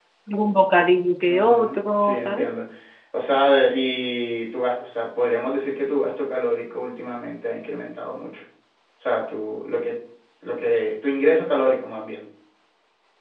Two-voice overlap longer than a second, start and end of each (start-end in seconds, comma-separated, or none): 1.3-2.5